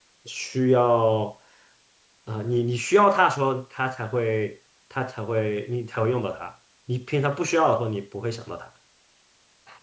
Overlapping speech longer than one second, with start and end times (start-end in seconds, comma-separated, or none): none